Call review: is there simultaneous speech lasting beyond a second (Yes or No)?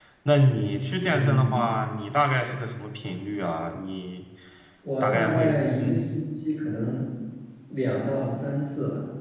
Yes